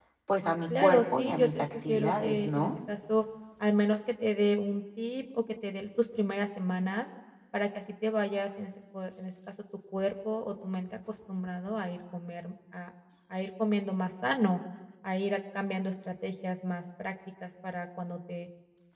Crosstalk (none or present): present